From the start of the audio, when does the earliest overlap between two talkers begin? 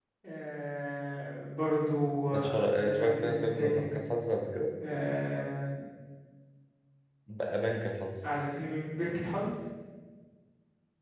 2.3 s

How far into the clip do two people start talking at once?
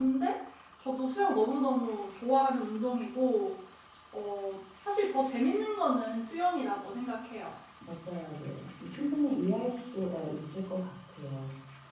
none

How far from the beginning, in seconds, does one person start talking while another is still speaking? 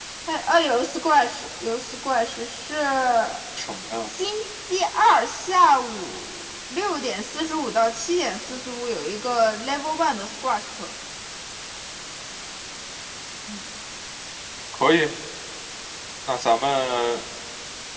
none

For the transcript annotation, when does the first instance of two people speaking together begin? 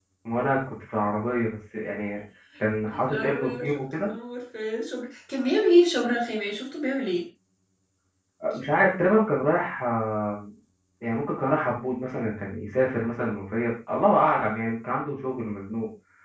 2.8 s

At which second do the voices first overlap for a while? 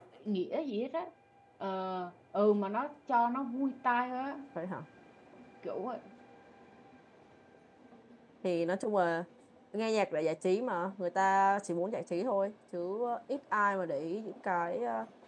none

